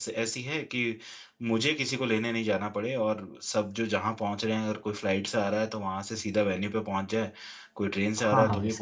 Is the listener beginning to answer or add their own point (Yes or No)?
Yes